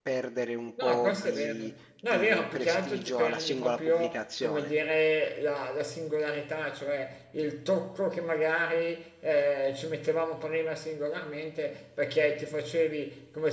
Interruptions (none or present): present